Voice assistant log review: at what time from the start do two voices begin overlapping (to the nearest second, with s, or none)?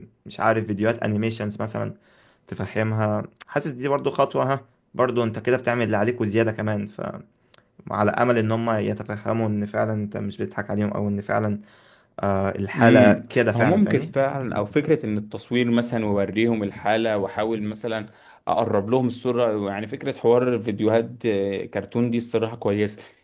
13 s